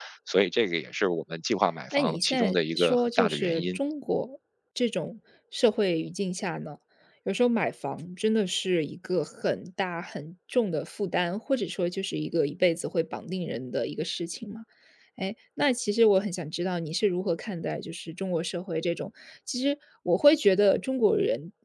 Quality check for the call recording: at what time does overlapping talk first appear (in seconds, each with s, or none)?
1.9 s